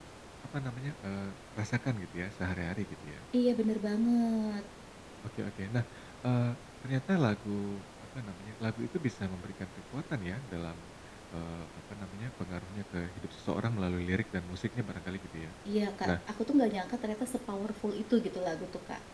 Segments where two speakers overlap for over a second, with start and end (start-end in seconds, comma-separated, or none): none